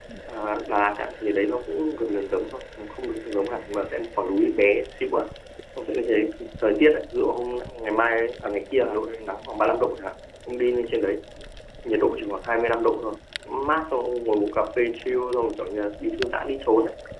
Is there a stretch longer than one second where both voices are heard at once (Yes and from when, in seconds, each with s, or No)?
No